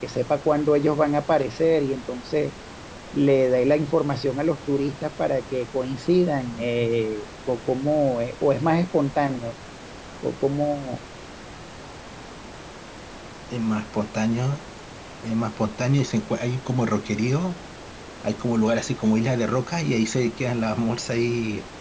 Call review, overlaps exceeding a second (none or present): none